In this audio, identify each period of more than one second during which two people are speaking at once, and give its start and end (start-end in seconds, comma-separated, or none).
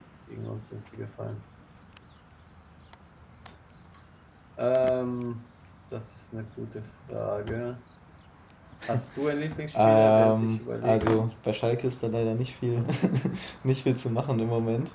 9.7-11.3